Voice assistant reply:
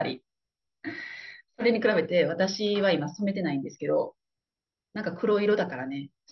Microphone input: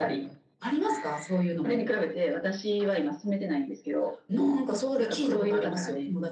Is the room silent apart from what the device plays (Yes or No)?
No